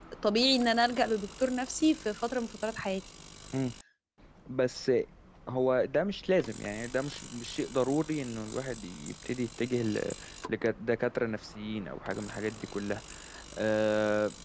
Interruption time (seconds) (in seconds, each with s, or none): none